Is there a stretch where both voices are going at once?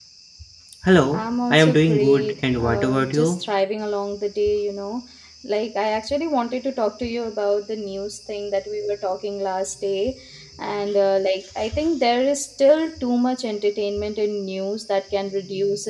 Yes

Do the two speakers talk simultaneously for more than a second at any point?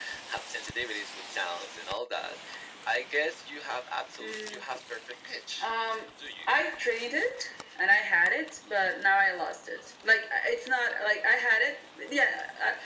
No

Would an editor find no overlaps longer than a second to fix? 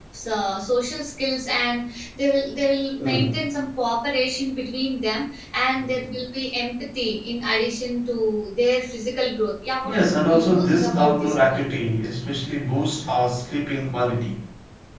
No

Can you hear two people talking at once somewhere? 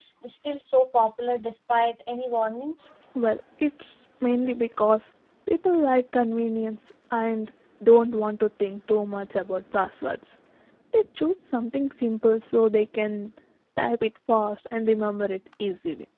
No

